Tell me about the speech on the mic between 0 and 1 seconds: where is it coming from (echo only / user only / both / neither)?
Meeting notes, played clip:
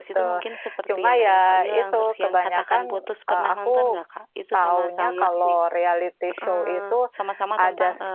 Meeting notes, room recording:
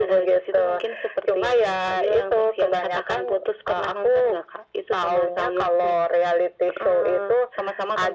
echo only